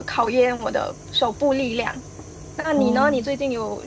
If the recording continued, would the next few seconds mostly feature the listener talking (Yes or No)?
No